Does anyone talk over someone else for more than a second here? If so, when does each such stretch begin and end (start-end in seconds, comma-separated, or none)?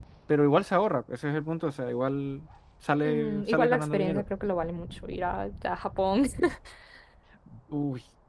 3.0-4.2